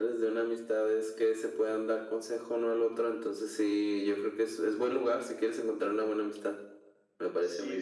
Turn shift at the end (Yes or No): Yes